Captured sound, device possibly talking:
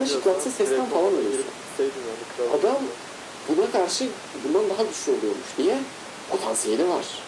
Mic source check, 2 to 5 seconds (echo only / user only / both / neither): echo only